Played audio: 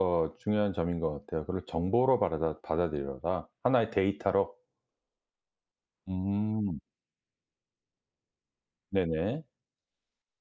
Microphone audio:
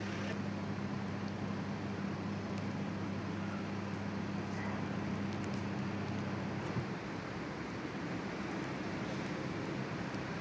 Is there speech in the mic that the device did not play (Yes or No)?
No